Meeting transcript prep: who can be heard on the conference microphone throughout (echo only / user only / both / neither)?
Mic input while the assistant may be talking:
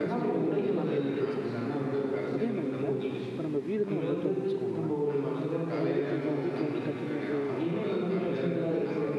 both